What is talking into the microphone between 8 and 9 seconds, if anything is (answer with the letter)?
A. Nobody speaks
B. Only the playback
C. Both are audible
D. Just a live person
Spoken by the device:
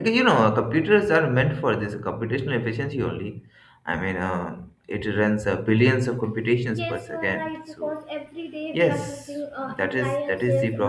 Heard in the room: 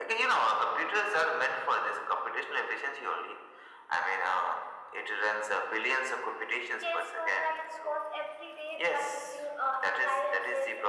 B